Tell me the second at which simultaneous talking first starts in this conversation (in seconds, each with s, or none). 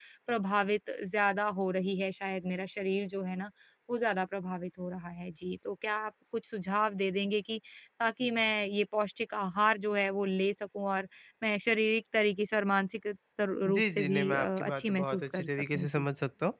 13.6 s